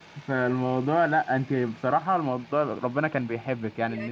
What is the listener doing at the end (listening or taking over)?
taking over